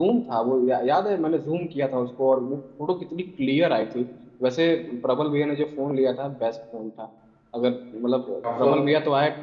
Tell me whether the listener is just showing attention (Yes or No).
Yes